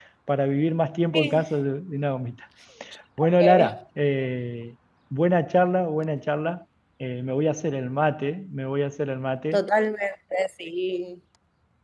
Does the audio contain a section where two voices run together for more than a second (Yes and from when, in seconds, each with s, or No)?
No